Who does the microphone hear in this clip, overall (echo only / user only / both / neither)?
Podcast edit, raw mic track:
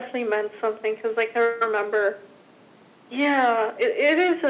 echo only